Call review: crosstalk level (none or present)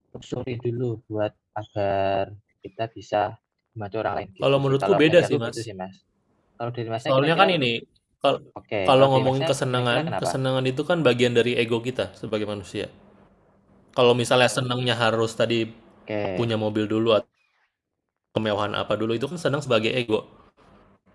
present